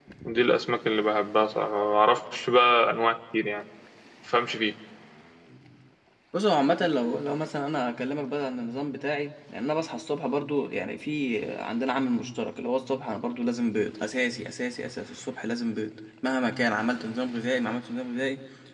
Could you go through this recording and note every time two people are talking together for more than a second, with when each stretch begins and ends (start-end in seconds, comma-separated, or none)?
none